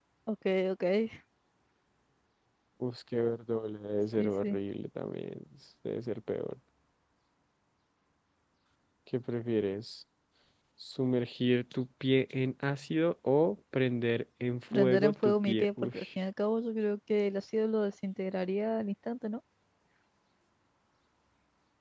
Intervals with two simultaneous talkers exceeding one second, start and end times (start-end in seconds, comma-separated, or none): 14.7-16.0